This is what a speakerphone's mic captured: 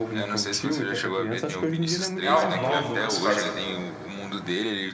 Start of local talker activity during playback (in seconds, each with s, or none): 2.2 s